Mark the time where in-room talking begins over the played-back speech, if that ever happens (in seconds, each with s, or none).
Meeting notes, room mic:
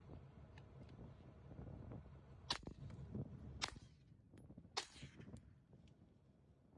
none